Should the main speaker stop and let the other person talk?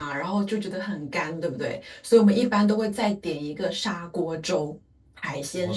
Yes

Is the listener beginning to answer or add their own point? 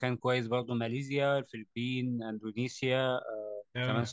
No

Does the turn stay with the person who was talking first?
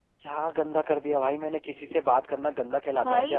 No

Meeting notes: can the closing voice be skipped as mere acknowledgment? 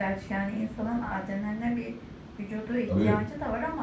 Yes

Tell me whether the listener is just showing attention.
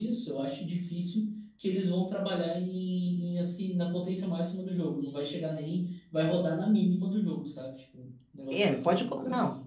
No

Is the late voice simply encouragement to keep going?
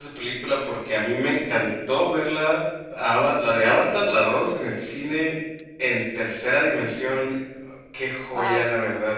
Yes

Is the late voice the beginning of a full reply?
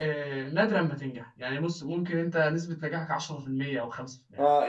Yes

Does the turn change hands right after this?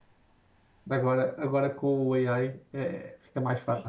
Yes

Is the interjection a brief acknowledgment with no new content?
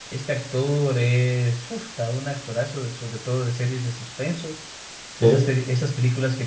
Yes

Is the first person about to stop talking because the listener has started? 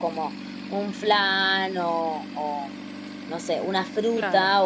No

